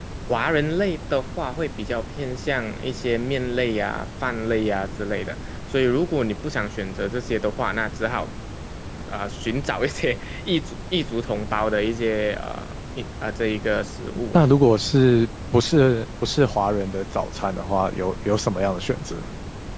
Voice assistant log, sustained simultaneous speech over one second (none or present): none